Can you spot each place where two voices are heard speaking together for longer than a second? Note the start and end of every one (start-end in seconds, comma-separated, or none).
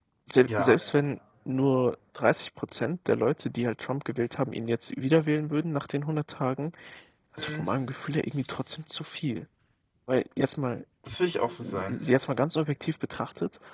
none